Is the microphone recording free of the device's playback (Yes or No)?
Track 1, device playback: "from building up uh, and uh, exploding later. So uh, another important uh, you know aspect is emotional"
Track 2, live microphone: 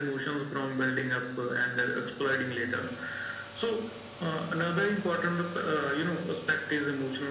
No